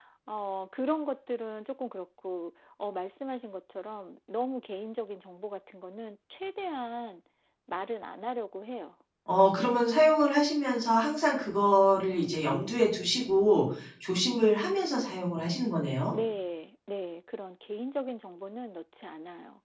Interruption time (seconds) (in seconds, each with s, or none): none